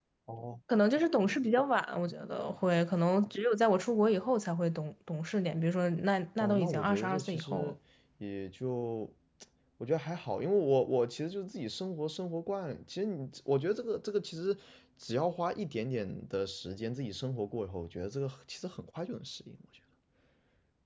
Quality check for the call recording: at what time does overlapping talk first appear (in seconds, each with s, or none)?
6.4 s